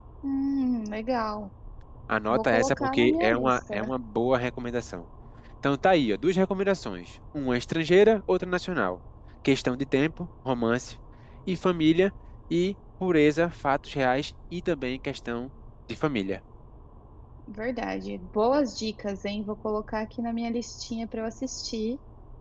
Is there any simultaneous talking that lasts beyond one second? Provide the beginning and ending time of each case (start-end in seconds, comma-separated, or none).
2.3-3.9